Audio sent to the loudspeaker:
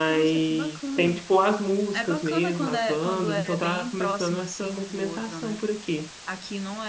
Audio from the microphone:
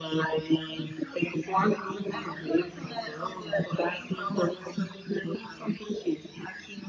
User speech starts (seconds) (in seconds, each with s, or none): 1.9 s